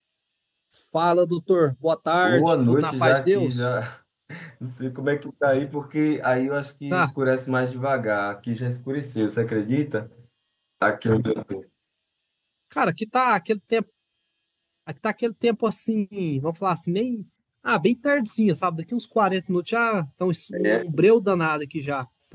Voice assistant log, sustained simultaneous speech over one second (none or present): present